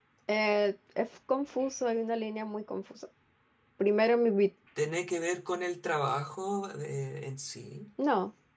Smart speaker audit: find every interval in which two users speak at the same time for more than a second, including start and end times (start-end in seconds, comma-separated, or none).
none